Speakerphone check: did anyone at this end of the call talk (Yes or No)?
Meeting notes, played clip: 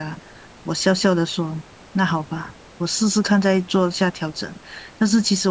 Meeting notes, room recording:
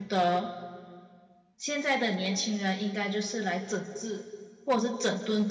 Yes